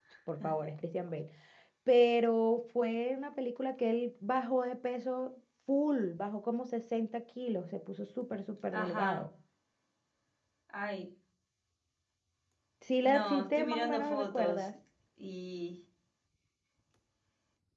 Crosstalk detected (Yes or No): Yes